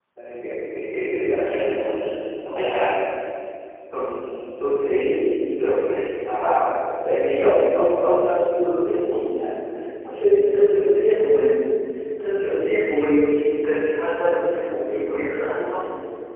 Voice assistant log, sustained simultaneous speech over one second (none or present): none